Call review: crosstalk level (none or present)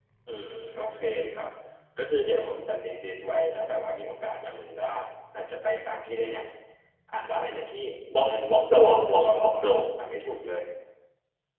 present